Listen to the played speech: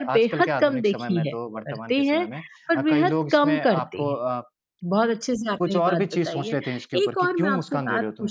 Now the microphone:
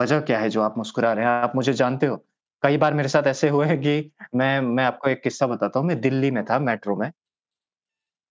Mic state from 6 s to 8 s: user only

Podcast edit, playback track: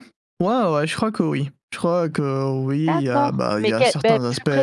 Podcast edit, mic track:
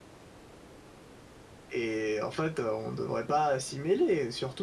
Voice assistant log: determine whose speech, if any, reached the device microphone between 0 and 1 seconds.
neither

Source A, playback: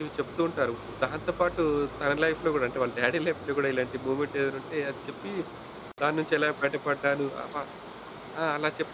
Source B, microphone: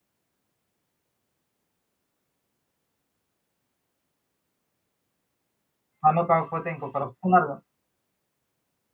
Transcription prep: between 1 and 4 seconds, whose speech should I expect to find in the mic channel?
neither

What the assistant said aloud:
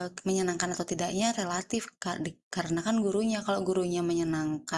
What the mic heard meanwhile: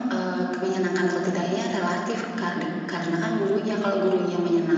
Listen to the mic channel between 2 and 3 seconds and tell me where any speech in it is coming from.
echo only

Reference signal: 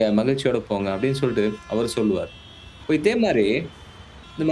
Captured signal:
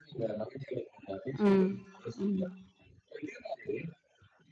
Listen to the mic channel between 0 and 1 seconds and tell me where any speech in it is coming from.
echo only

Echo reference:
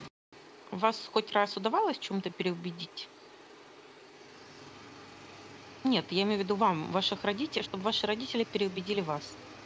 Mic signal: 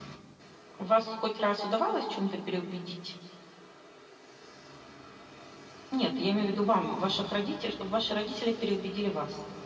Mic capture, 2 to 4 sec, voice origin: echo only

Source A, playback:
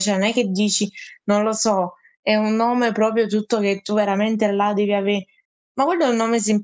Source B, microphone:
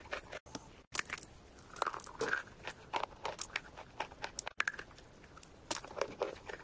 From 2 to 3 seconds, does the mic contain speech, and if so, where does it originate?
neither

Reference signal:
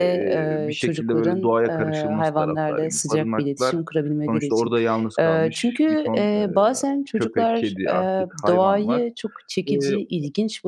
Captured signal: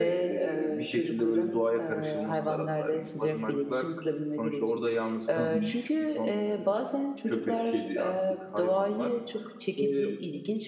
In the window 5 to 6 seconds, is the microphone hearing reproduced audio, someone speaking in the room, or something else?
both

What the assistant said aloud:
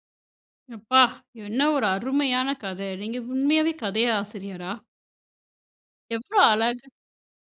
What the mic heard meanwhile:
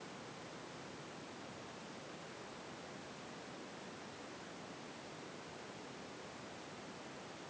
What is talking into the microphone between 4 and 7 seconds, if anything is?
neither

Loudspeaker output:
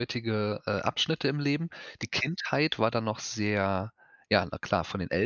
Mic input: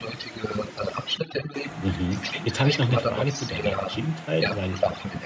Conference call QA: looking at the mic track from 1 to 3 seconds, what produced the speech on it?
both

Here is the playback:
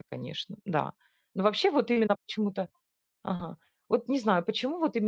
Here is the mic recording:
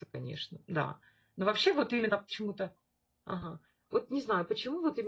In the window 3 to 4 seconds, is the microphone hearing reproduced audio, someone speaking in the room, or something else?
echo only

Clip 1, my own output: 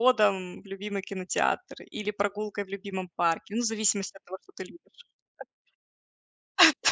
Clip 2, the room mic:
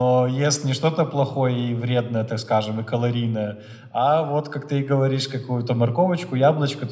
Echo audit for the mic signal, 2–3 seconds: user only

